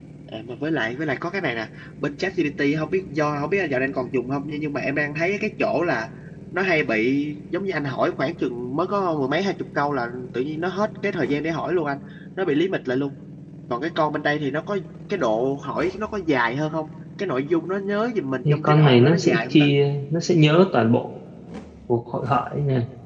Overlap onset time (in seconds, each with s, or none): 18.4 s